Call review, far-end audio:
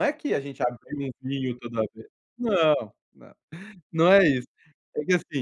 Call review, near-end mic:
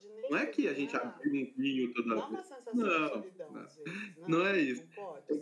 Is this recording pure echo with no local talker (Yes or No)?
No